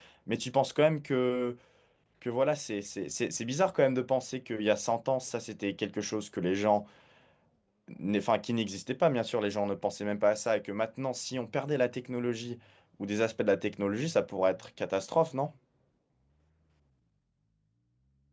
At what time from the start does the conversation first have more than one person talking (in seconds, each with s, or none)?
none